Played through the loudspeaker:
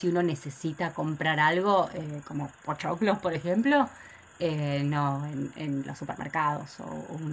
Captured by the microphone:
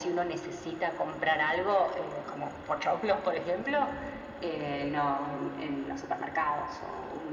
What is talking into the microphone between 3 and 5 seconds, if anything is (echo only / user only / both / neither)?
echo only